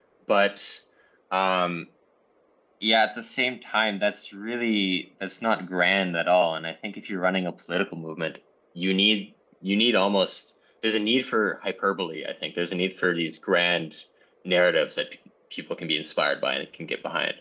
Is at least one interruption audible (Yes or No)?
No